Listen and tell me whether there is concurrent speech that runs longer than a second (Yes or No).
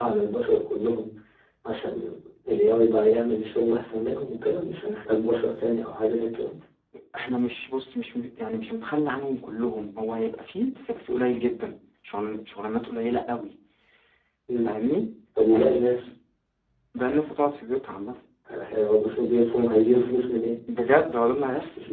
No